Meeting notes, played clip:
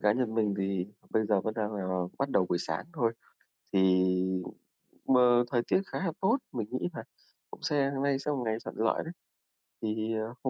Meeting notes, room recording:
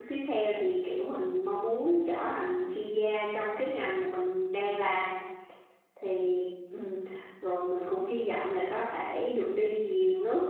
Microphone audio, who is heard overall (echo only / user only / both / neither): user only